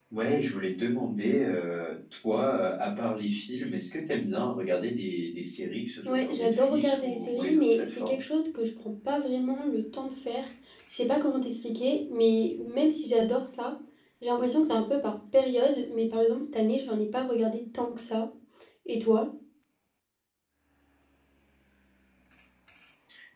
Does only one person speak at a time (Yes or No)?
No